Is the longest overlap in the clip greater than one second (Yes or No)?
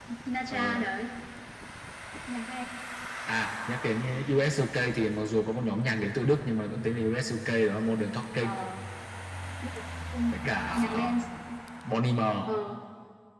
No